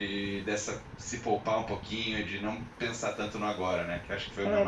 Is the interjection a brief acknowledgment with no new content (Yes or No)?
No